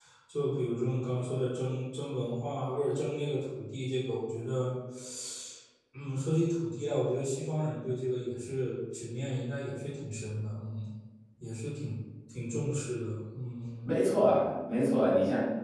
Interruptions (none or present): none